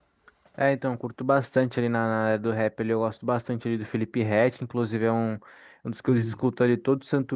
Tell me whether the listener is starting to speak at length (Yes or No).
No